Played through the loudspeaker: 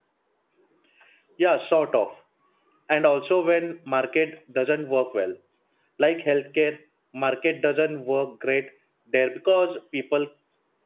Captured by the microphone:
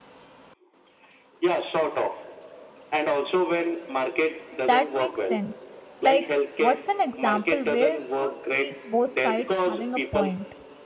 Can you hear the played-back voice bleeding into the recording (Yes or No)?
Yes